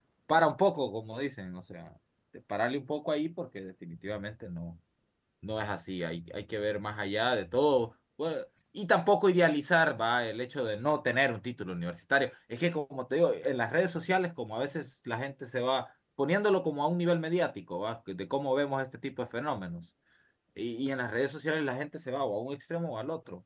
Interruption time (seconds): none

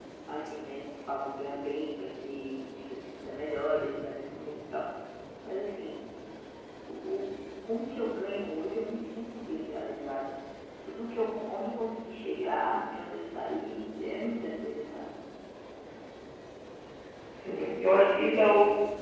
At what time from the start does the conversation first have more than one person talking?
none

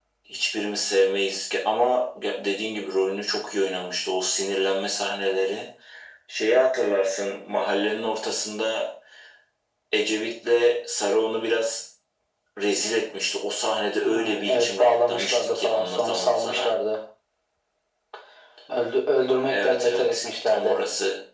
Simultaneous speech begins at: 14 s

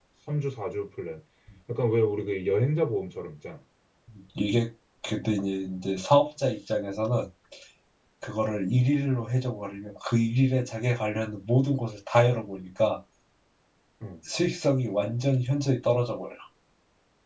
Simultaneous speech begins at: none

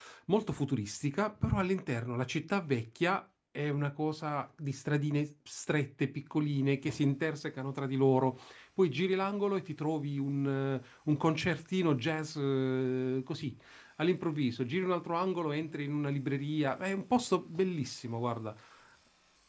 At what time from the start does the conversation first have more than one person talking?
none

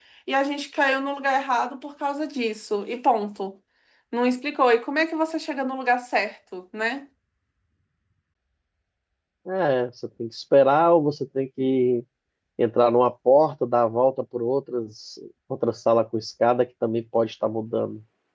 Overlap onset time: none

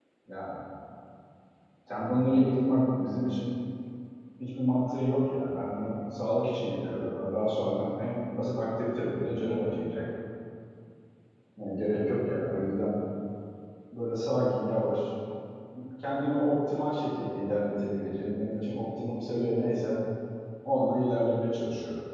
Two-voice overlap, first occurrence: none

